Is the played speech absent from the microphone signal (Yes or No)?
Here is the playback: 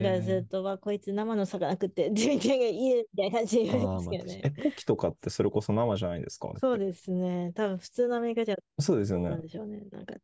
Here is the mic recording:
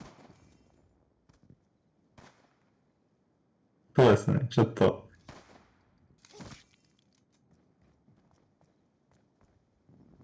Yes